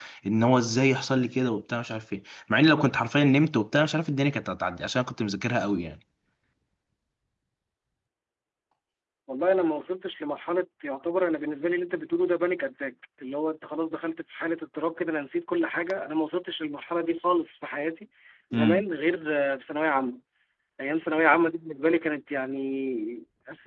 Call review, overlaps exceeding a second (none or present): none